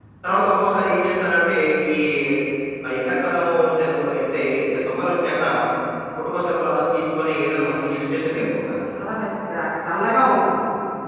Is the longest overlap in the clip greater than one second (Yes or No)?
No